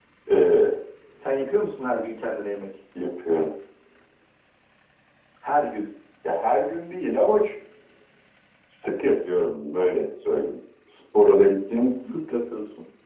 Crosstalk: none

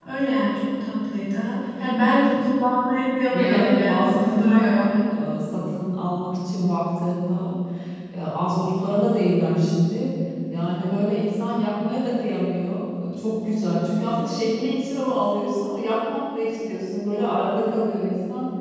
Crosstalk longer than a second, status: present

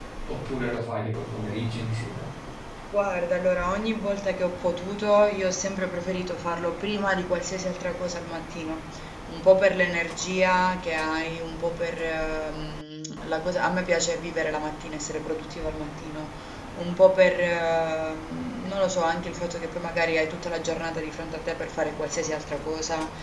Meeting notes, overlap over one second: none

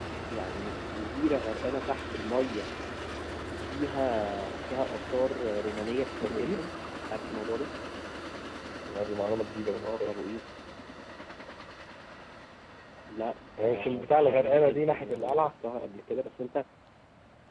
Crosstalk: present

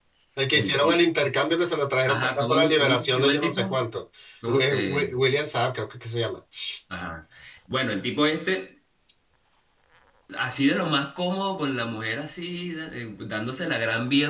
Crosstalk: present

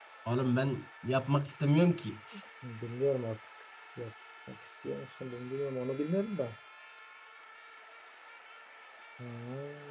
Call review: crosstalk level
none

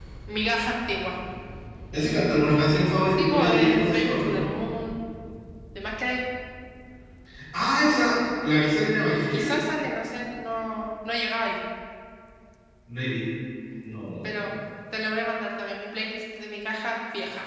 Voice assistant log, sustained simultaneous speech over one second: present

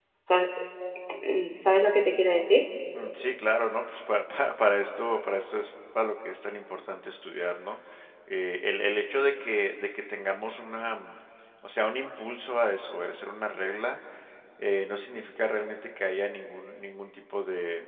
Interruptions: none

